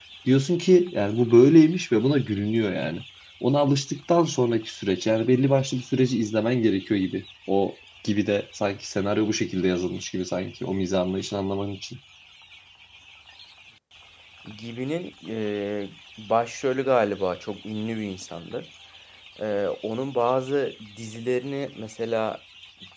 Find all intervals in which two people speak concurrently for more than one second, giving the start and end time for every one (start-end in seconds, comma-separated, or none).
none